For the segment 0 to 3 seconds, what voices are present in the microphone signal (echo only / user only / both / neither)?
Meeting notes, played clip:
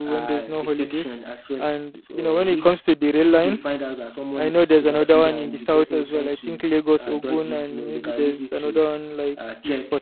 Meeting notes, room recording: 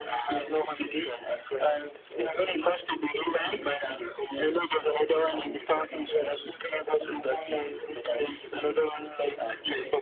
echo only